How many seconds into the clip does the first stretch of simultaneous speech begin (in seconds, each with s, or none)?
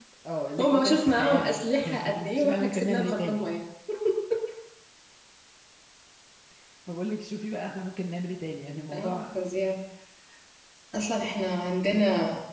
0.6 s